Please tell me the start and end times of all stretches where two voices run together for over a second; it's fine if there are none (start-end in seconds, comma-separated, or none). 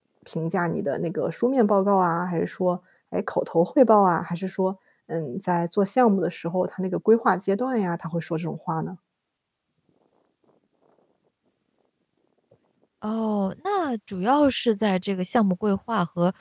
none